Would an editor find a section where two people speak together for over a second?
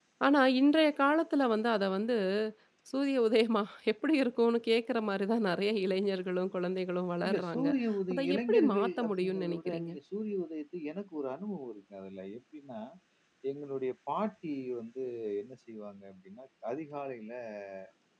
Yes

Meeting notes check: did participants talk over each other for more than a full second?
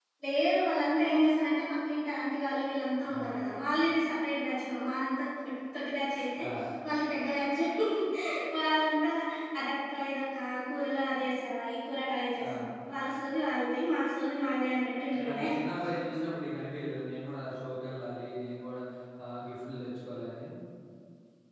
No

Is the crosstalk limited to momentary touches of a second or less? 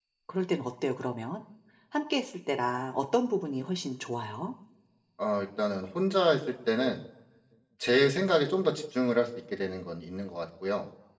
Yes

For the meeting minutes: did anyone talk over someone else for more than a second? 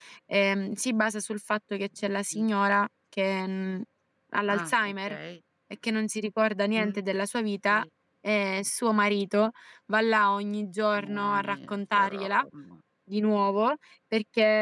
Yes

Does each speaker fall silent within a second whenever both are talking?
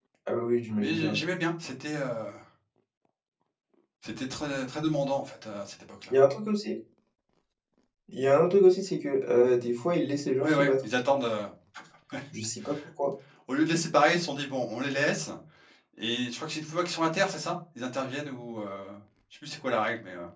Yes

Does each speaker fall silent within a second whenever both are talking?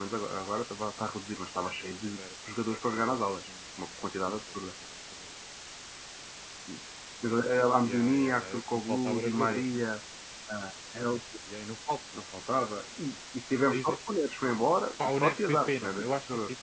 No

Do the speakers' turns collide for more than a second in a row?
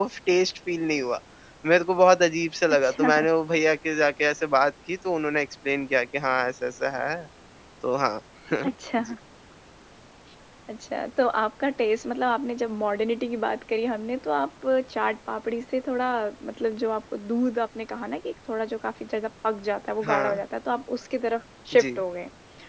No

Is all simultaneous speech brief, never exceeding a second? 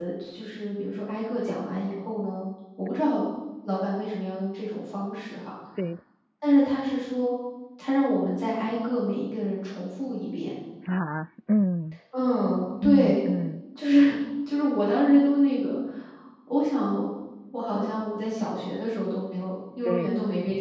Yes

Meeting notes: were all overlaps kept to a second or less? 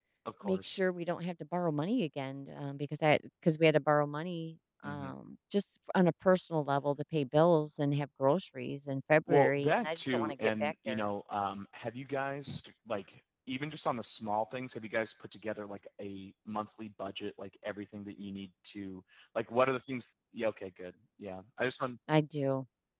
No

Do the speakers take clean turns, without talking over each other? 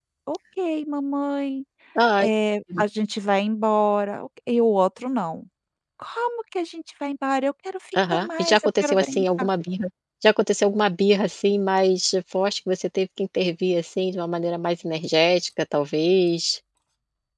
No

